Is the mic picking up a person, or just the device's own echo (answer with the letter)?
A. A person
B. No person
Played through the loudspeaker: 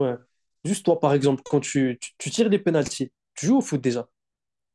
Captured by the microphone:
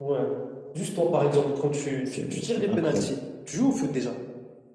A